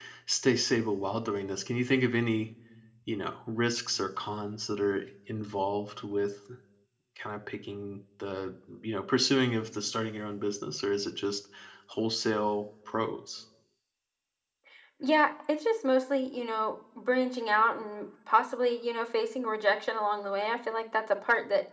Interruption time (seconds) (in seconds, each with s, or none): none